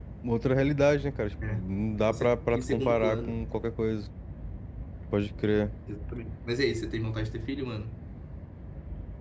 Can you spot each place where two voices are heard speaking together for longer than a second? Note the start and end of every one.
2.1-3.4

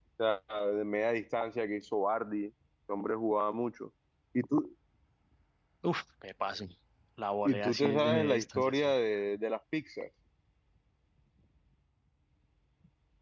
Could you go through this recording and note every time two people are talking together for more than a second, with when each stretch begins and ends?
7.4-8.9

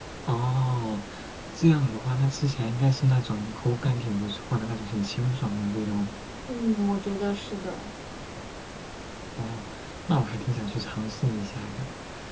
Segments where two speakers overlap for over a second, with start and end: none

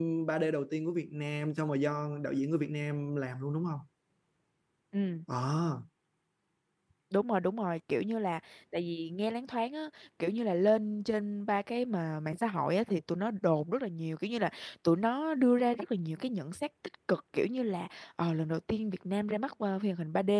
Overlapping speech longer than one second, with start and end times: none

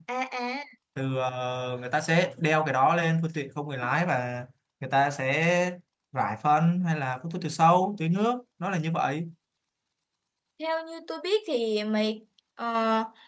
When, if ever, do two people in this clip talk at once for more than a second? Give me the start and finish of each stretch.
none

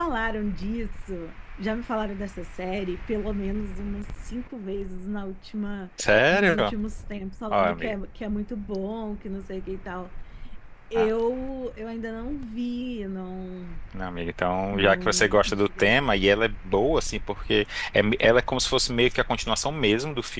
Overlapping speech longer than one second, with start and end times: 14.7-15.9

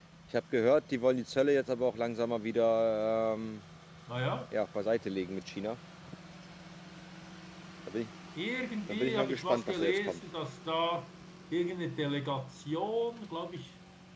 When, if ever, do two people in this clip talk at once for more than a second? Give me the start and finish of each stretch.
8.9-10.2

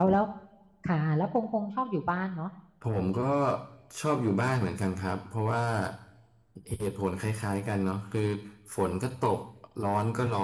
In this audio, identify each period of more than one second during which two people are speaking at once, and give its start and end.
none

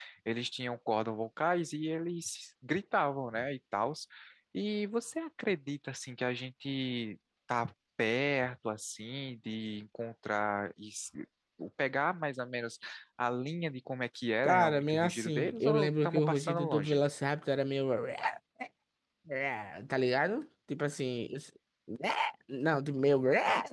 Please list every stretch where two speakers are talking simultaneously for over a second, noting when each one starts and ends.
14.4-17.0

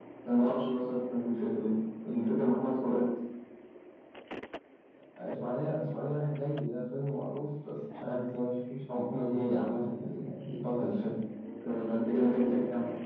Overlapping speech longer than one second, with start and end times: none

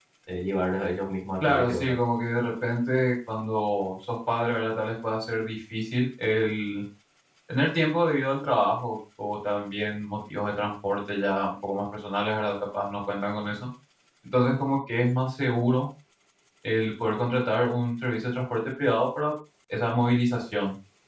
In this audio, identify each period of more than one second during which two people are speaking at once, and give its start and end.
none

